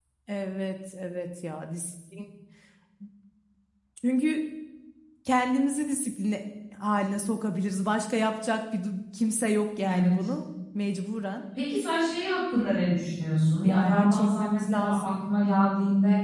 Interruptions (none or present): present